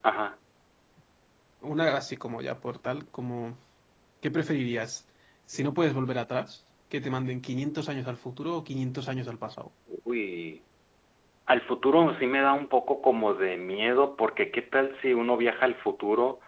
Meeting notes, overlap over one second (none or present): none